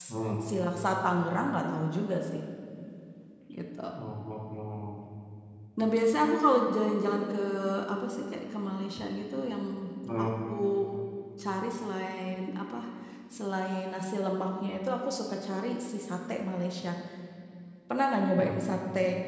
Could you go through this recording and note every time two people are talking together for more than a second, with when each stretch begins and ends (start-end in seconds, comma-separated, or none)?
none